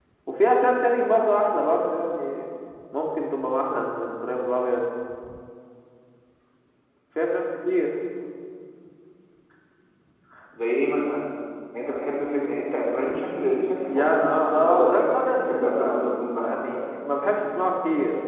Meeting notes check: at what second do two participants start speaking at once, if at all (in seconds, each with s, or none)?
13.9 s